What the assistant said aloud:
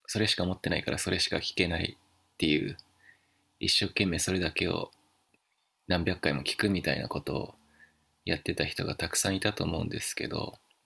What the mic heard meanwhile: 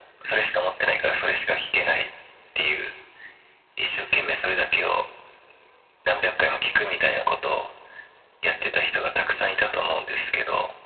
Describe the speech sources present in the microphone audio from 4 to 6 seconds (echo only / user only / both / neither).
echo only